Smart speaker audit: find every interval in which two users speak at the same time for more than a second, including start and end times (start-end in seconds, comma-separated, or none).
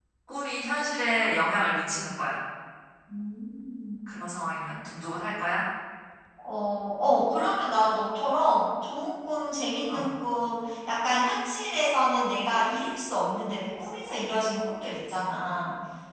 none